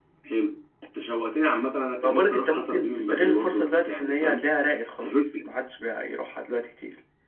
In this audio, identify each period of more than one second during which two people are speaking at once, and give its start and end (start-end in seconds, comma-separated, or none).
2.0-4.4